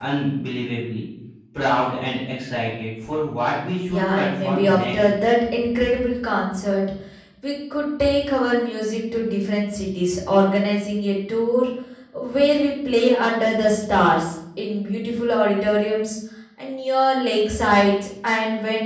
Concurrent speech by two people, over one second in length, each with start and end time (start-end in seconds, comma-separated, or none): 3.9-5.1